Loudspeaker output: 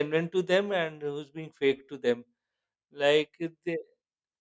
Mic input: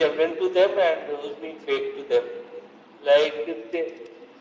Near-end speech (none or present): none